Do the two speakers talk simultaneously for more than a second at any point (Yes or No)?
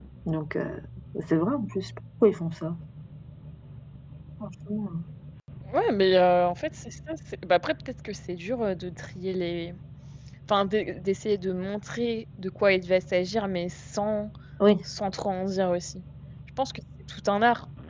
No